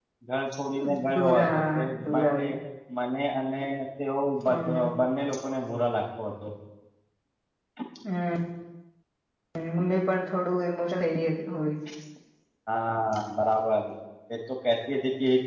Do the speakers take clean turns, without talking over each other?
No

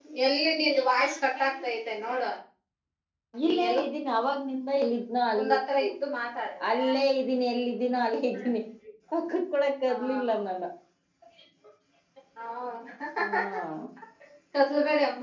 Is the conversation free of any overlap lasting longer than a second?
Yes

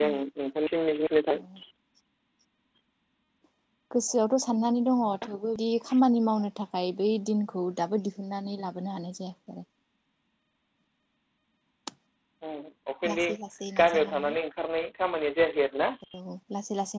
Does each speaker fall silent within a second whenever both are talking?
Yes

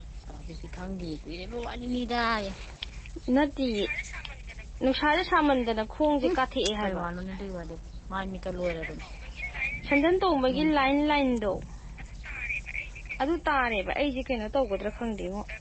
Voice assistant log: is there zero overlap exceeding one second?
Yes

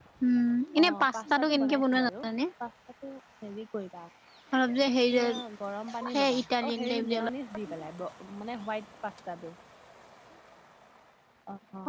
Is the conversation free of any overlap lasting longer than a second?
No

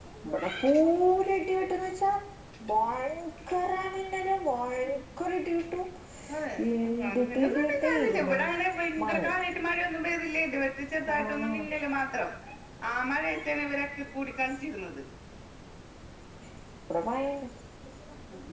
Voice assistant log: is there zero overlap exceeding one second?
No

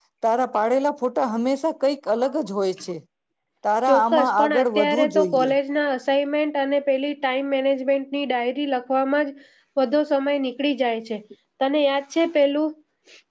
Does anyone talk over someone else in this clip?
Yes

